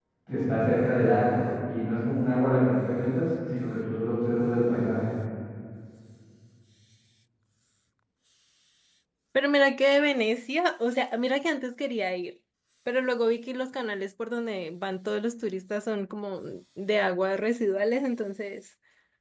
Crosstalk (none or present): none